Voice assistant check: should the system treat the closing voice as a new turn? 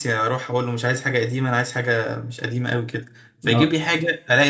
No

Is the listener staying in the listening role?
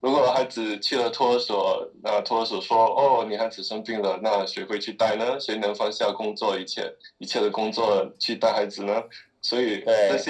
Yes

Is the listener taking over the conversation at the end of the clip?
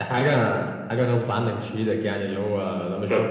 Yes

